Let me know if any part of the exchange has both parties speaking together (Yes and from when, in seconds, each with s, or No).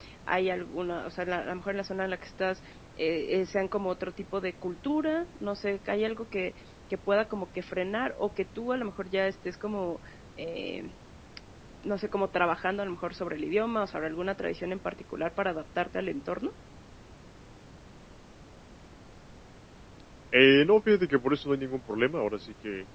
No